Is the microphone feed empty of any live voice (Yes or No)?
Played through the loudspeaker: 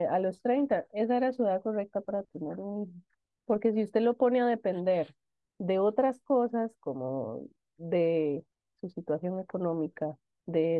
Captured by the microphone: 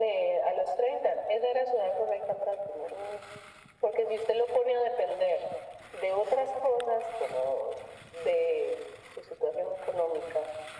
Yes